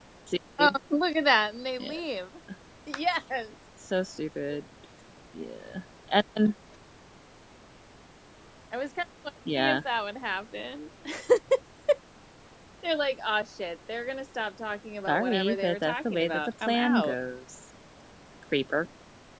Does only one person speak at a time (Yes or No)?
No